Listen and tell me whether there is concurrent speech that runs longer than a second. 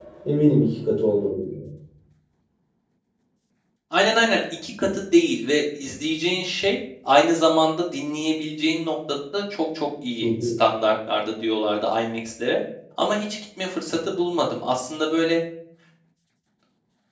No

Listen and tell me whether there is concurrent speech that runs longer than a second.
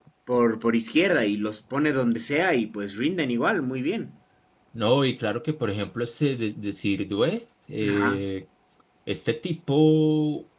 No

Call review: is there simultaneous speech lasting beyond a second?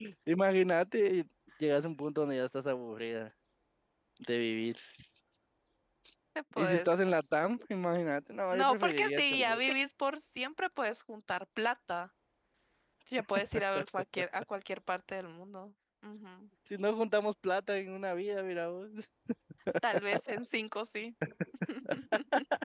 Yes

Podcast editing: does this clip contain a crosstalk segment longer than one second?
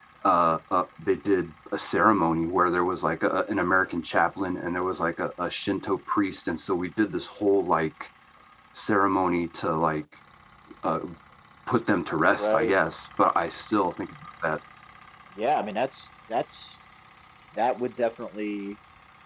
No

